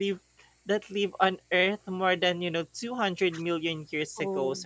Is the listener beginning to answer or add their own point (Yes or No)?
No